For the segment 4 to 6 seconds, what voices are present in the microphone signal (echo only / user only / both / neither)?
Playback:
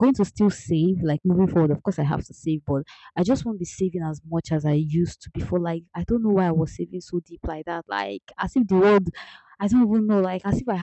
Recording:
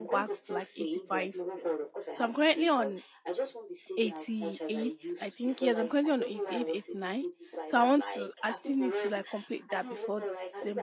both